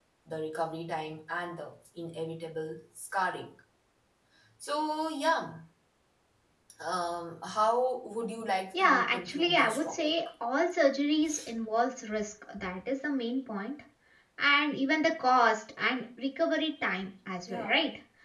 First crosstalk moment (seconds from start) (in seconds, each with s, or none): 8.7 s